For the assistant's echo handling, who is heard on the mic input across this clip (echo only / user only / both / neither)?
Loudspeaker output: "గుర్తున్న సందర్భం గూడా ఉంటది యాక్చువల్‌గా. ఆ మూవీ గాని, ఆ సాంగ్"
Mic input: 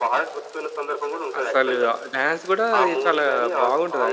both